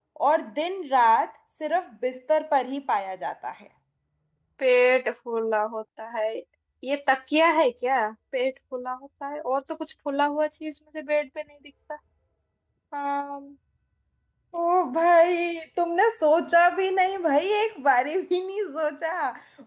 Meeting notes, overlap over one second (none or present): none